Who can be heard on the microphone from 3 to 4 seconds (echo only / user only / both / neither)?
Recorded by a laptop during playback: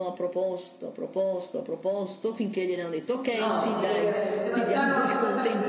both